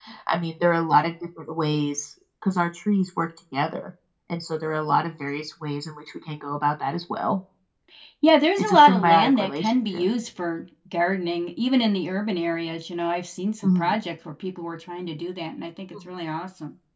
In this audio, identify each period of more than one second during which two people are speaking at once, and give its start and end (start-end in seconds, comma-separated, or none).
8.6-10.1